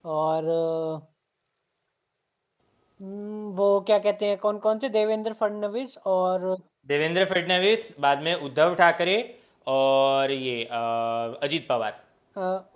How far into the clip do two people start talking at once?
none

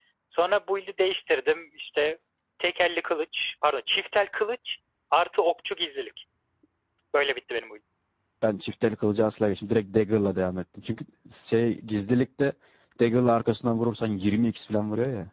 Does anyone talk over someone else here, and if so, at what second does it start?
none

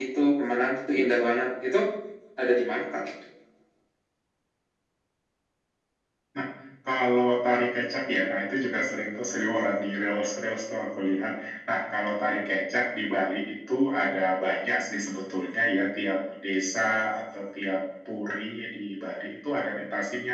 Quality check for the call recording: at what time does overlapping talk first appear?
none

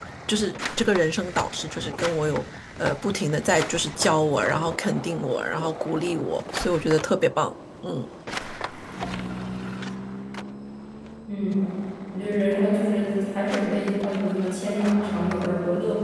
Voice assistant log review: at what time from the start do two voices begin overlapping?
none

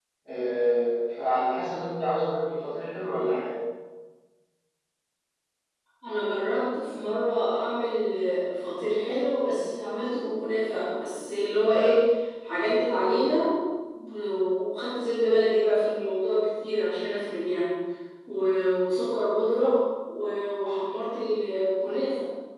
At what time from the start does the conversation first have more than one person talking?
none

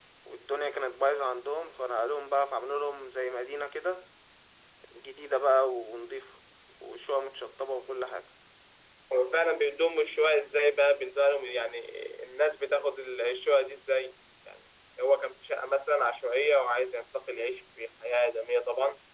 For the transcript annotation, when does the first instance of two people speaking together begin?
none

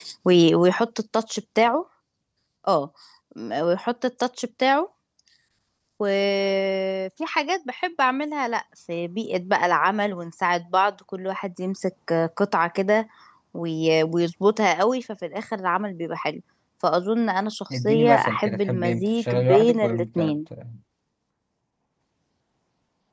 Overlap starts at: 17.7 s

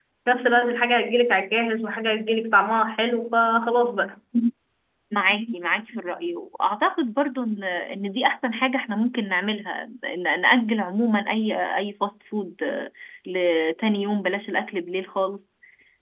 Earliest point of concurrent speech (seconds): none

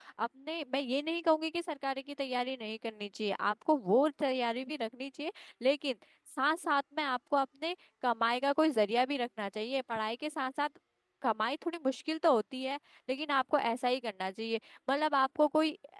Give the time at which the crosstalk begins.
none

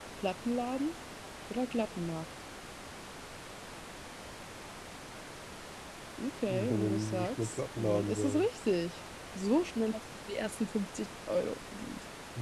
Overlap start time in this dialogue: 6.5 s

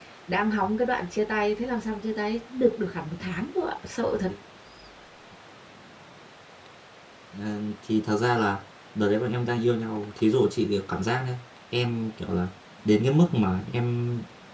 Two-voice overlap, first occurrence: none

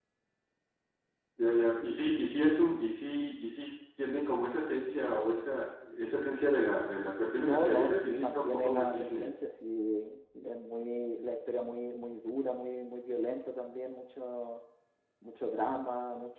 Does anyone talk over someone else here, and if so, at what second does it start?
7.4 s

